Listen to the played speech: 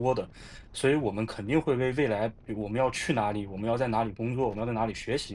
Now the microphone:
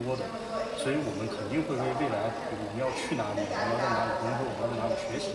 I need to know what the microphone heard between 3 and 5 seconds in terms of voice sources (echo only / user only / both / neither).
both